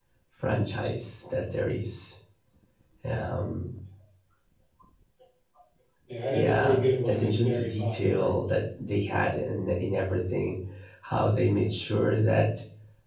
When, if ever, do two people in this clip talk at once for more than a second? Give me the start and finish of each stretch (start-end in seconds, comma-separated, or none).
6.3-8.3